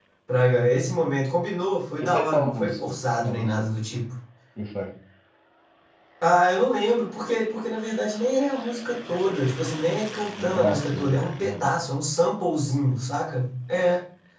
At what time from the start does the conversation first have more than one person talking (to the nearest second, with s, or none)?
2 s